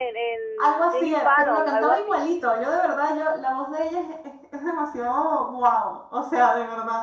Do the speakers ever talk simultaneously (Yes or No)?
Yes